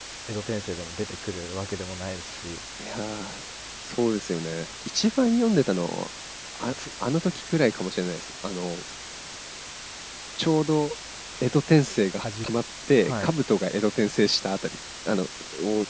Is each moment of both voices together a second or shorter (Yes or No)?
Yes